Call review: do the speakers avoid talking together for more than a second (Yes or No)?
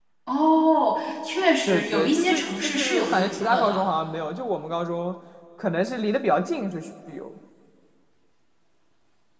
No